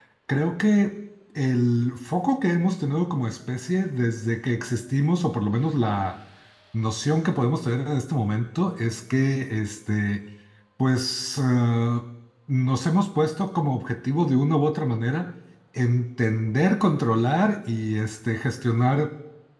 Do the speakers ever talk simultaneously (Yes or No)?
No